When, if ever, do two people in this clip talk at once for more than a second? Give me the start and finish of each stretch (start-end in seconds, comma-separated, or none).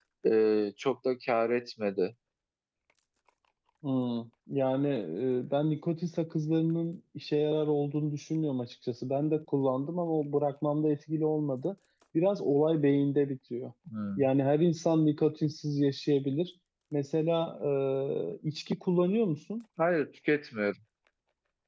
none